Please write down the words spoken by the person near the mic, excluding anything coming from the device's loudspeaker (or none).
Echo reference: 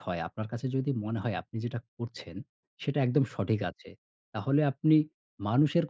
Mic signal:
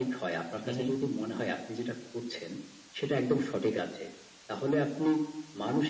হু, হু।